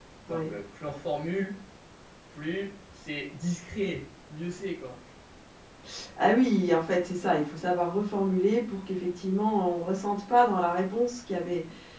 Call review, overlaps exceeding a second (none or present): none